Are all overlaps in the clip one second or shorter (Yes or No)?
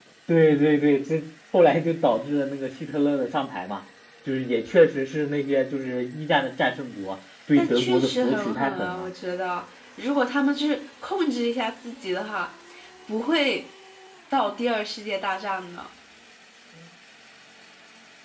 No